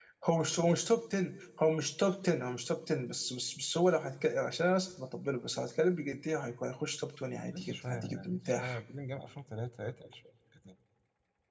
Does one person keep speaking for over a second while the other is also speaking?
Yes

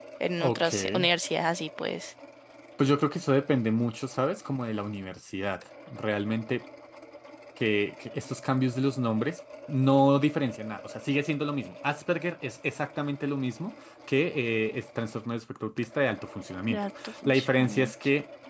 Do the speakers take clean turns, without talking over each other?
No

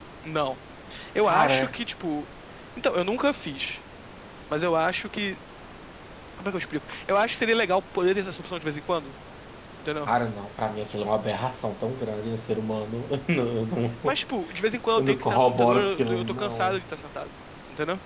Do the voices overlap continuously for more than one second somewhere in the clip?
Yes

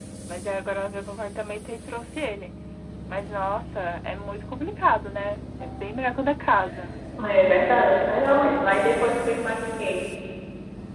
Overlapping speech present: No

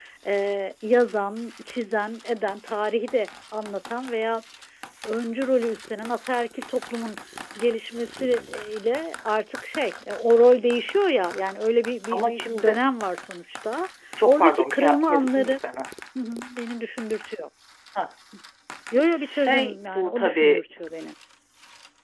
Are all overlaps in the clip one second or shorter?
No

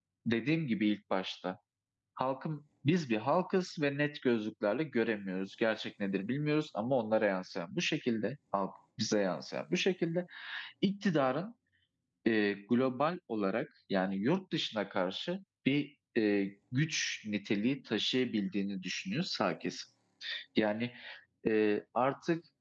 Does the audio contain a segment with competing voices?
No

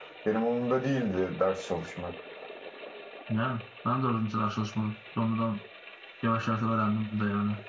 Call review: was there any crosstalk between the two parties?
No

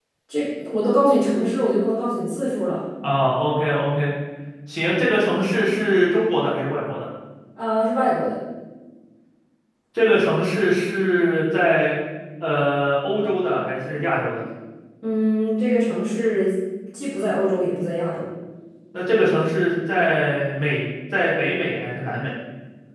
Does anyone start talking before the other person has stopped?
No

